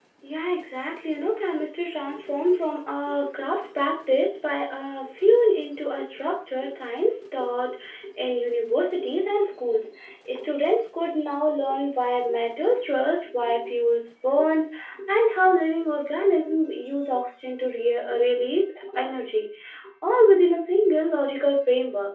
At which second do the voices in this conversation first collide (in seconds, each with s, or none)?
none